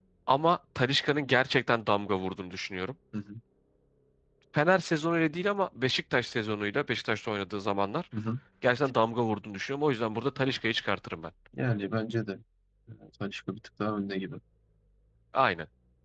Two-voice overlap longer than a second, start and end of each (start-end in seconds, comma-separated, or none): none